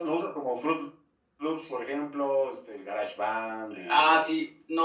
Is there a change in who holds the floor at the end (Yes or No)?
Yes